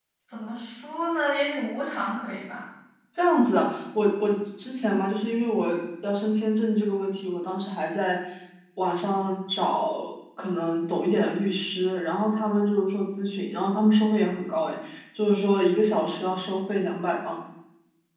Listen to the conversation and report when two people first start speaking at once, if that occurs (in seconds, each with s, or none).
none